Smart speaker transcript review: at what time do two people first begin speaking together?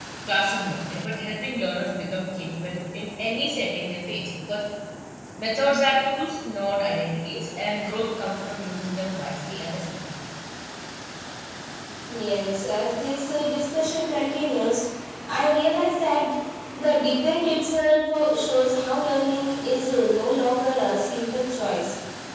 none

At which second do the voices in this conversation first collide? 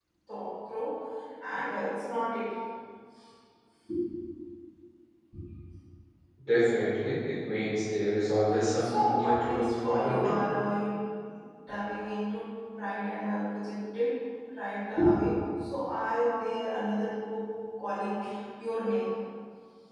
8.8 s

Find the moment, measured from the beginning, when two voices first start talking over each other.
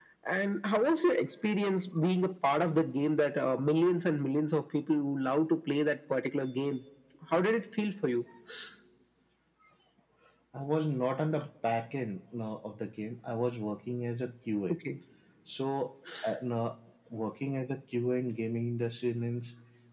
none

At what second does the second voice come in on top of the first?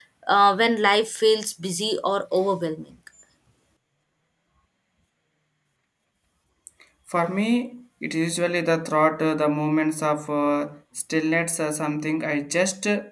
none

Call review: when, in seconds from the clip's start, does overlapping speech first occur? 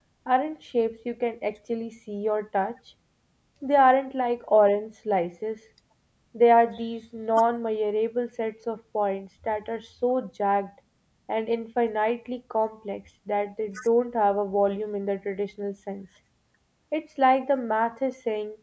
none

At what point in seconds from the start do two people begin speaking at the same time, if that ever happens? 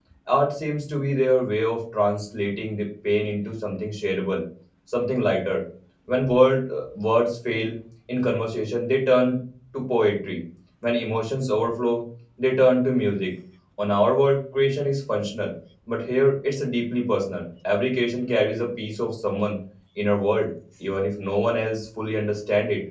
none

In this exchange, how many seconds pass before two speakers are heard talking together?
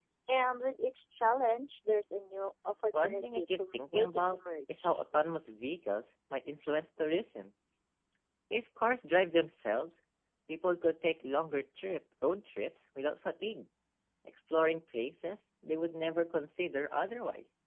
2.9 s

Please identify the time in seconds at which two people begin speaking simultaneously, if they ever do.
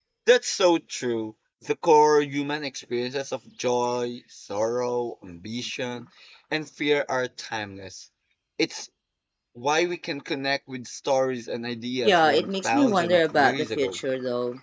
12.0 s

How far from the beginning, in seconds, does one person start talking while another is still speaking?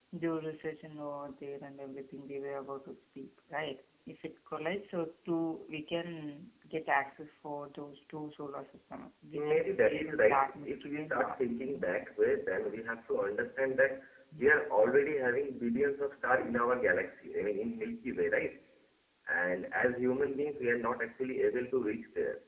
9.3 s

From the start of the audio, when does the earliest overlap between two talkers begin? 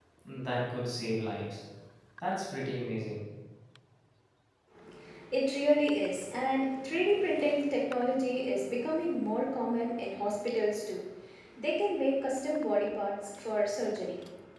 none

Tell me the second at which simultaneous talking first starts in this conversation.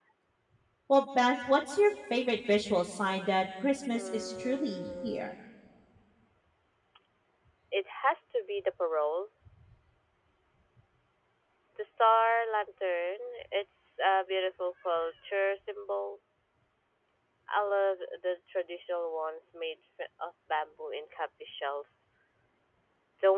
3.9 s

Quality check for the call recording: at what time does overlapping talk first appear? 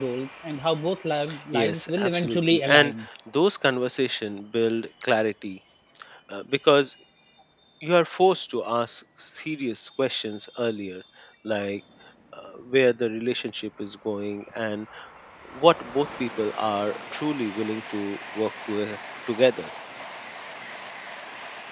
1.5 s

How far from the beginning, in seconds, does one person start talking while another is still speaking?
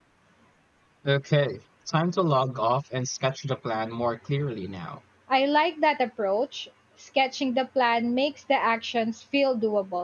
none

